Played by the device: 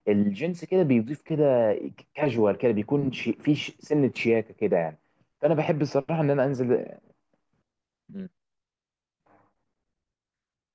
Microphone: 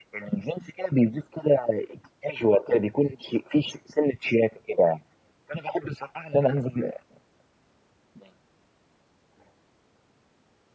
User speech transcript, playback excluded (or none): none